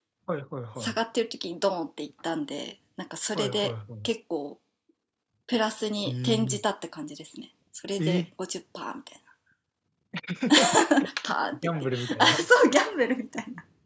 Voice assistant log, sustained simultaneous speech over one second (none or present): present